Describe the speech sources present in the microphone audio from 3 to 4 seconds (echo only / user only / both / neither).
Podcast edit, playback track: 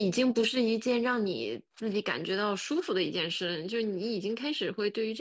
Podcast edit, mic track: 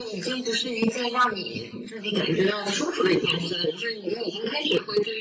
echo only